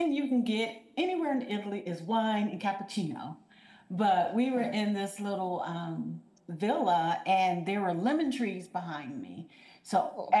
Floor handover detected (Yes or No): No